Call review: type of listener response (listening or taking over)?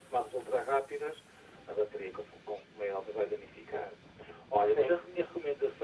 listening